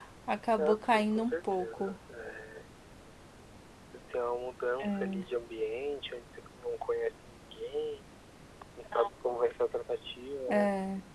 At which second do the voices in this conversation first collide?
0.6 s

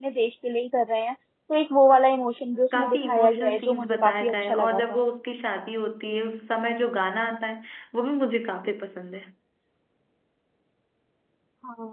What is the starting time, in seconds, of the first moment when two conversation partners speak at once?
2.7 s

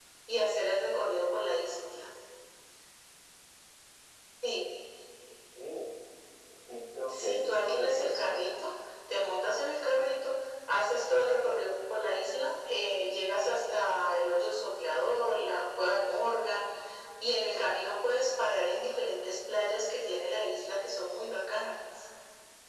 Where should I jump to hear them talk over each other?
7.1 s

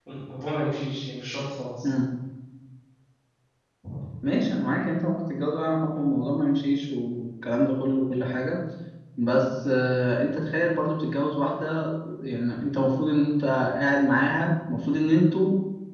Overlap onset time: none

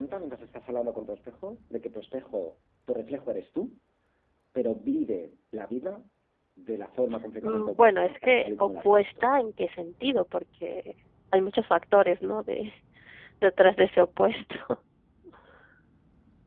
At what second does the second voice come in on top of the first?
7.4 s

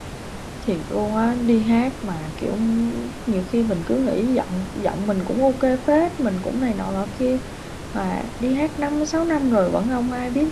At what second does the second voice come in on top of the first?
none

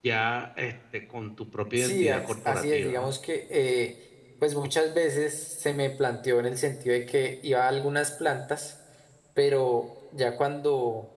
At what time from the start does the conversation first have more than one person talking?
1.8 s

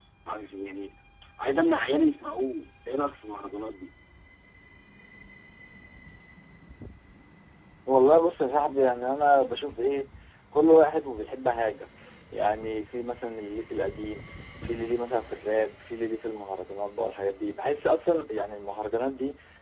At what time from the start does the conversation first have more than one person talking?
none

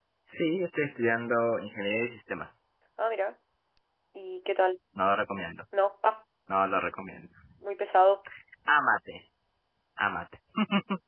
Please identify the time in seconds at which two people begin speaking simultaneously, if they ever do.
none

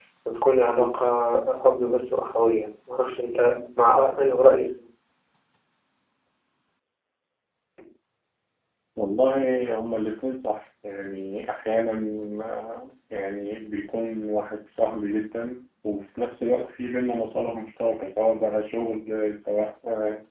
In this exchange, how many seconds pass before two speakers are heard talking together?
none

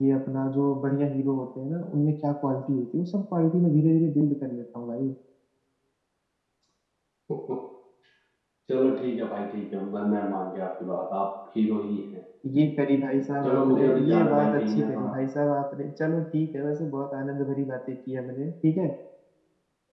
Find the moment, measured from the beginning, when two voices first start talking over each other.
13.4 s

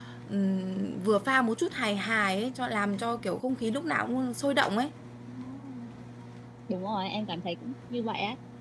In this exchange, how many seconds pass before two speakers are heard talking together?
none

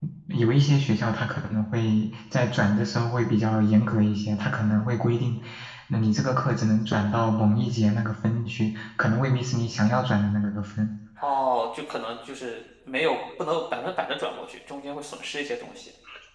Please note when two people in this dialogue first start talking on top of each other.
none

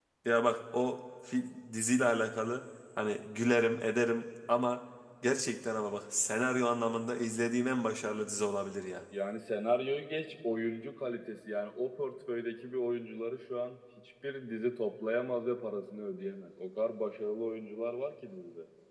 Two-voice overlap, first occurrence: none

